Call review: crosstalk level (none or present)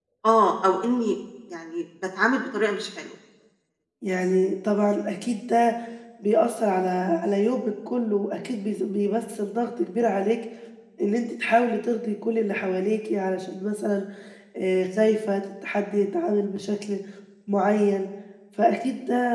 none